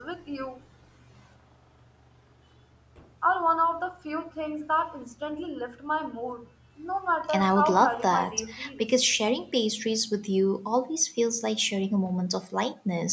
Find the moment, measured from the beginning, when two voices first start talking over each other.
7.3 s

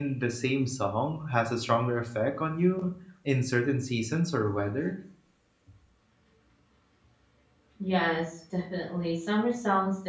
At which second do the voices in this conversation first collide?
none

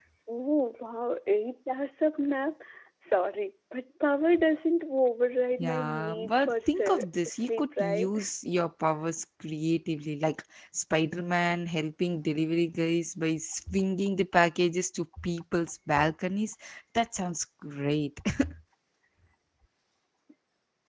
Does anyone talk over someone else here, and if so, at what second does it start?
5.6 s

